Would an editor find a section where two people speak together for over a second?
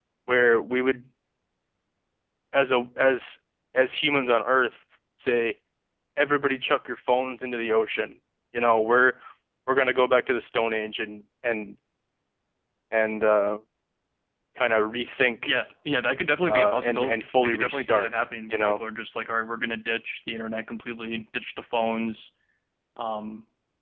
Yes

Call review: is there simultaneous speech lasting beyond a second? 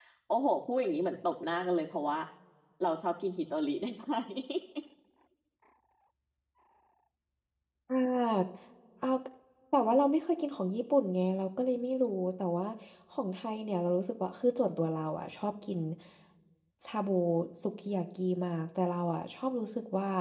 No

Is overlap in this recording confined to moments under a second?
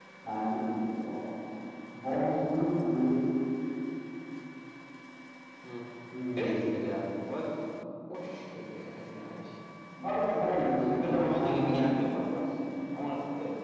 No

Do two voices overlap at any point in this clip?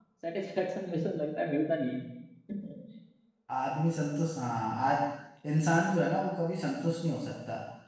No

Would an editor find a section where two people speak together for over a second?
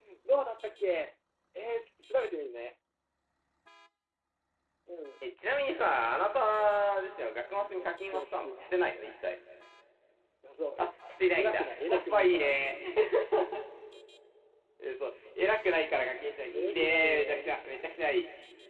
Yes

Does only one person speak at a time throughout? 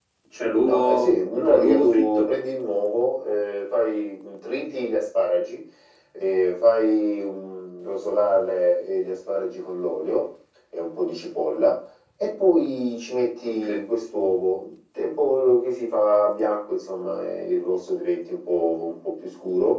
No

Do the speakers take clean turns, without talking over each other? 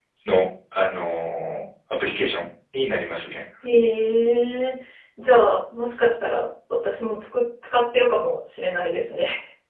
Yes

